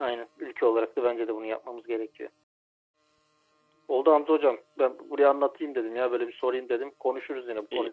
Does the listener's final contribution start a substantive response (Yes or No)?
Yes